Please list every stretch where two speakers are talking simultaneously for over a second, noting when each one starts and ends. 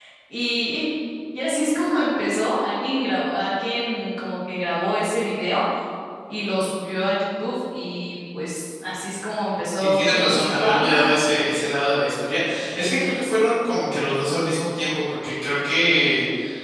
9.7-11.1

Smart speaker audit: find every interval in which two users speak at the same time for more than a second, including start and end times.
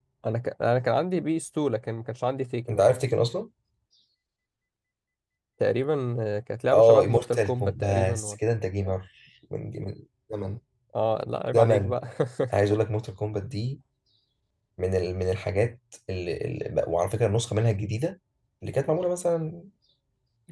6.7-8.3

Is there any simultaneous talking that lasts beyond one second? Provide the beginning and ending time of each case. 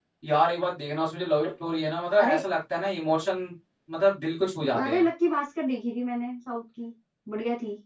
none

